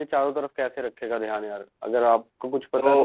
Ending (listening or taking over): taking over